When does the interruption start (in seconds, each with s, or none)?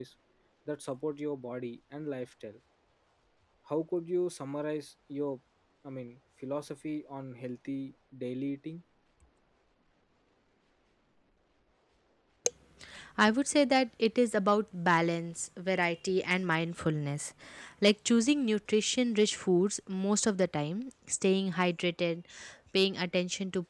none